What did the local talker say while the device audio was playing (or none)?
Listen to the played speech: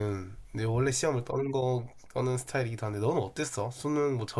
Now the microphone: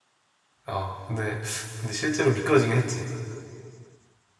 어 근데 근데 실제로 미끄러지긴 했지.